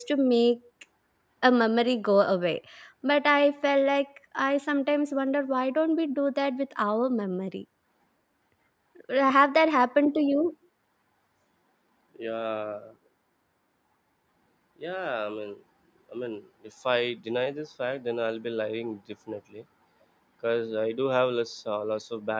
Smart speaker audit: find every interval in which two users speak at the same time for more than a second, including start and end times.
none

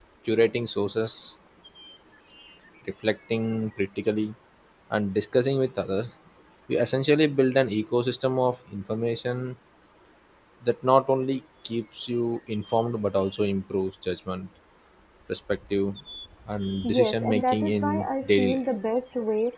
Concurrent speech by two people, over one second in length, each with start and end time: 16.8-18.6

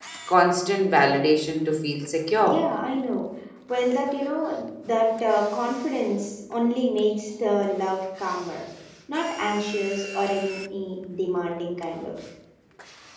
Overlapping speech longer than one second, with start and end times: none

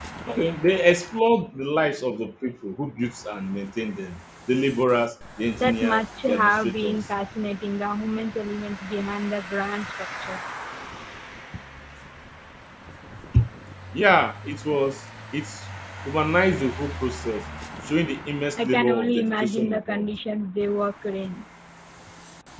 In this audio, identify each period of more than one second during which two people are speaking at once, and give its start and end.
5.6-7.1, 18.6-20.2

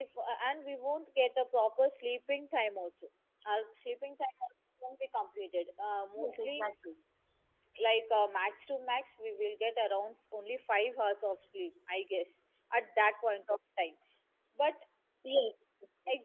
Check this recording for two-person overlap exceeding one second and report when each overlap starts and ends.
none

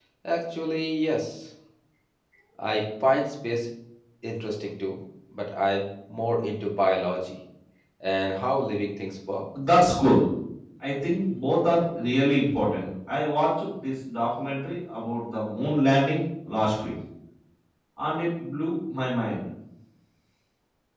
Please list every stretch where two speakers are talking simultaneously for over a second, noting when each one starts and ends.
none

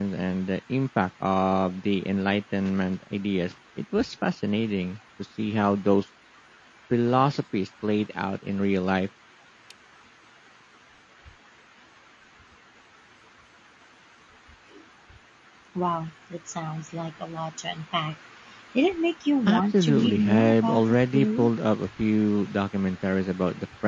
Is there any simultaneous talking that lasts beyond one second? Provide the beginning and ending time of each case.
19.5-21.5

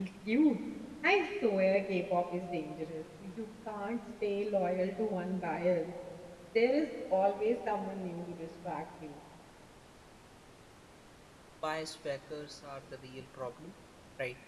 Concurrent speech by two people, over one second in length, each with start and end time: none

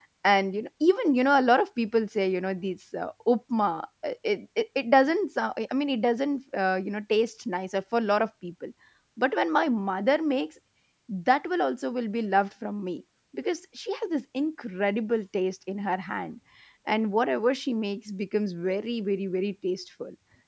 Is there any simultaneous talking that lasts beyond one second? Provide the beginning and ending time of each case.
none

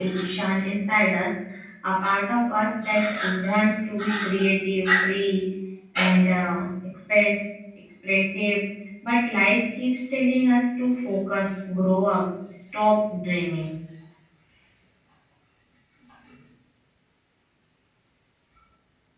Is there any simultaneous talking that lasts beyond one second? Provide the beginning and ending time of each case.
none

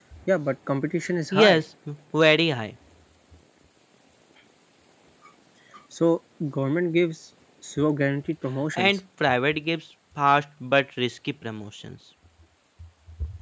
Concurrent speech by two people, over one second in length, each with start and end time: none

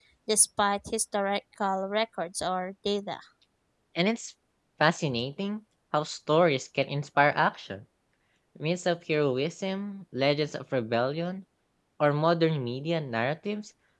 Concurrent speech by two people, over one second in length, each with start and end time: none

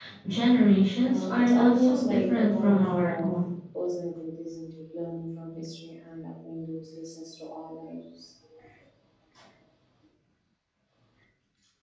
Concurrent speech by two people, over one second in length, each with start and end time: 1.1-3.3

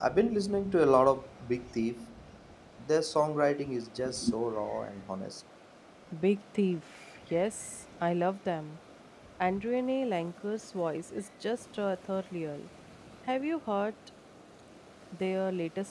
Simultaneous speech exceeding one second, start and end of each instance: none

